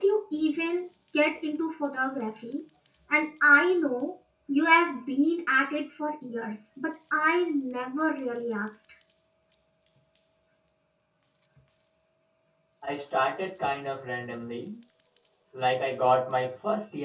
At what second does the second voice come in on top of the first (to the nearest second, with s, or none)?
none